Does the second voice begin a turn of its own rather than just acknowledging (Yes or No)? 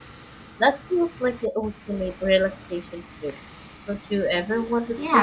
Yes